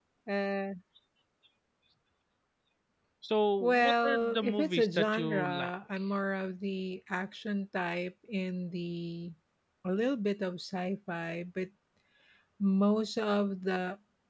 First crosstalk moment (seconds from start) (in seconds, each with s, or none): 3.6 s